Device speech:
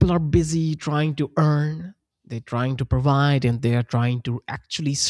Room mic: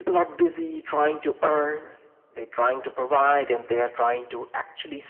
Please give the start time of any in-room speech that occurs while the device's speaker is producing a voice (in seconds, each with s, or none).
none